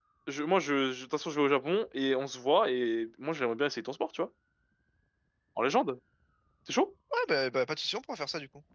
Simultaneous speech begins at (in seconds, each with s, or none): none